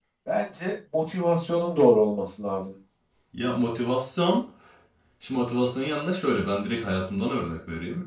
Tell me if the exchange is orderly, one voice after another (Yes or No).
Yes